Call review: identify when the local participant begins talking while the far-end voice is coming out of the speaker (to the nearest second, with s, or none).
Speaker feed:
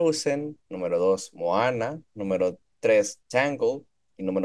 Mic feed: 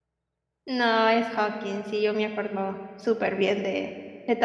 1 s